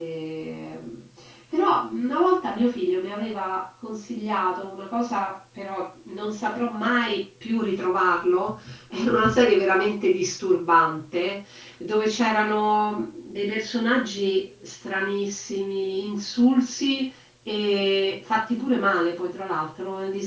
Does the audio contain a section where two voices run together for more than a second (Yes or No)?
No